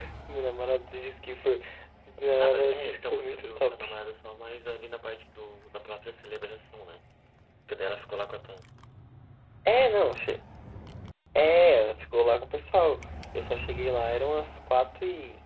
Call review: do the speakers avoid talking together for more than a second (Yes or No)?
No